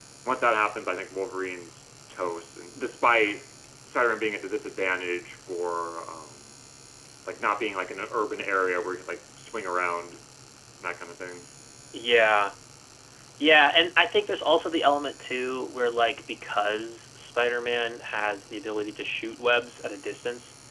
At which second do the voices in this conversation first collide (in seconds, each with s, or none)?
none